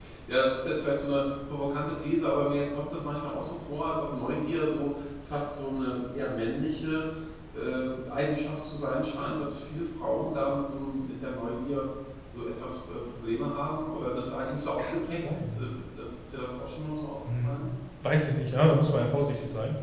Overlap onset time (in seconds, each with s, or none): 14.4 s